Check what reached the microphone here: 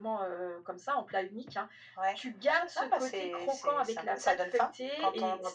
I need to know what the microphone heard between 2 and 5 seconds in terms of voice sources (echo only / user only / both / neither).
echo only